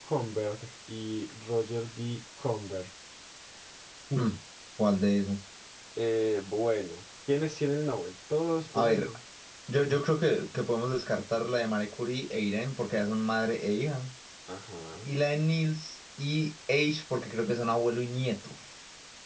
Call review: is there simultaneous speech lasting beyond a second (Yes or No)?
No